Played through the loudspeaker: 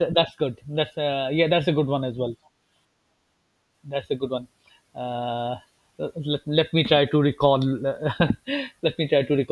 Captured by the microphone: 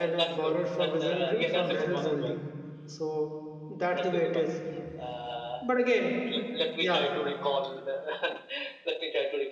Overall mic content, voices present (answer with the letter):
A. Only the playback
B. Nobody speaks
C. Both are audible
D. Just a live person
C